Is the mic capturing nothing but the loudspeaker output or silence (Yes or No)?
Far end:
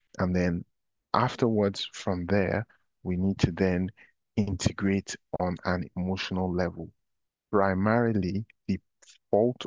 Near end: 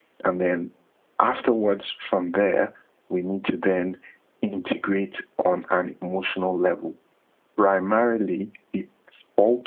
Yes